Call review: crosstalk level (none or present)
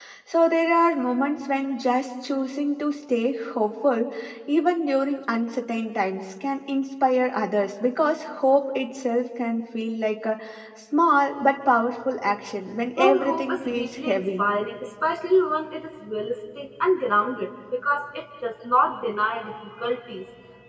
present